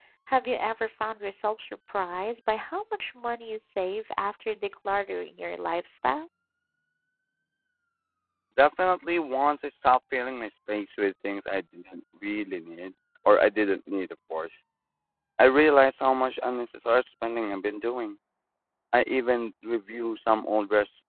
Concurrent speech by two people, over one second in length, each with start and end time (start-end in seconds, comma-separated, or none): none